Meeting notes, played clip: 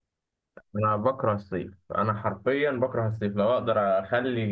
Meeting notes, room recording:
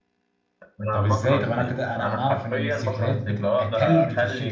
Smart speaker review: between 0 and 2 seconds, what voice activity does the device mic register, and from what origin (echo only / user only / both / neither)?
both